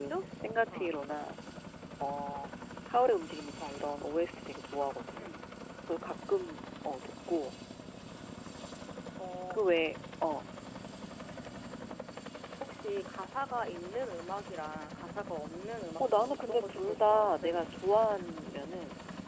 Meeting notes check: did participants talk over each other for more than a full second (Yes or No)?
Yes